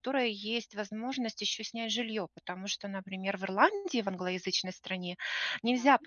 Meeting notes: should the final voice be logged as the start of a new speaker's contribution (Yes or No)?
No